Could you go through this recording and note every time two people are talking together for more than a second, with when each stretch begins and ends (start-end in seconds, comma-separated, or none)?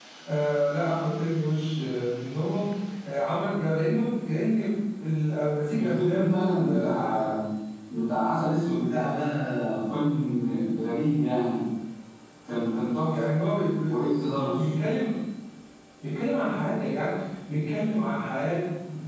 5.8-7.3